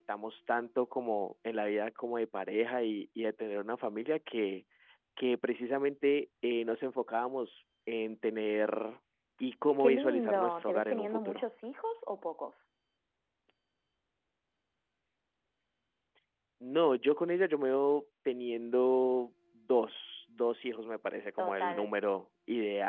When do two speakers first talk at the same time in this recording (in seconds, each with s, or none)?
9.8 s